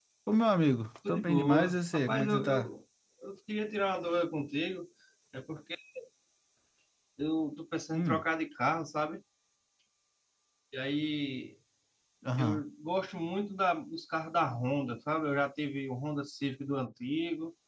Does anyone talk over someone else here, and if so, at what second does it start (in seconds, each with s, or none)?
1.1 s